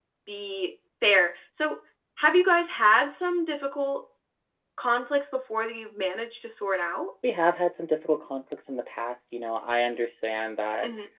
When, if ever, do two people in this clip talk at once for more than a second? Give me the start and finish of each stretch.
none

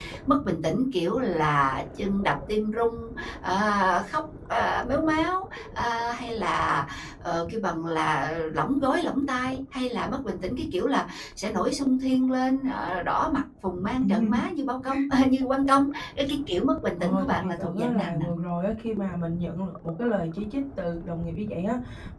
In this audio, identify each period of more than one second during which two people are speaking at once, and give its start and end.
17.0-18.2

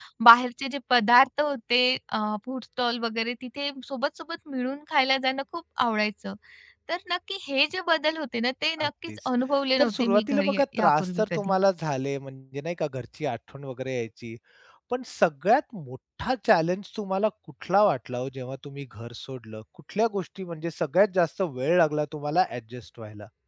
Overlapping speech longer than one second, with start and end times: 9.8-11.6

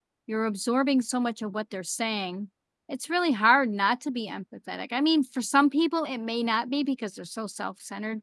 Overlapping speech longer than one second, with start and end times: none

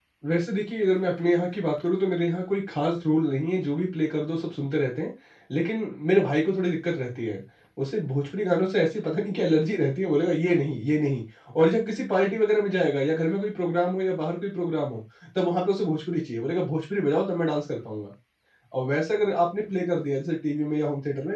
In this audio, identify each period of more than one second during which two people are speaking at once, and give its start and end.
none

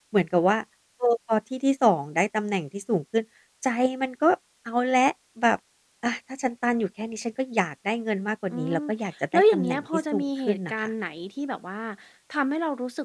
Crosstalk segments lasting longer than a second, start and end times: 9.3-10.9

